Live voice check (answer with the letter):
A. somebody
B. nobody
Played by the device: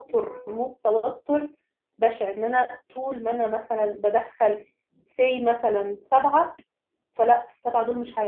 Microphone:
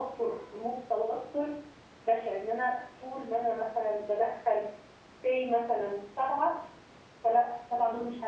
B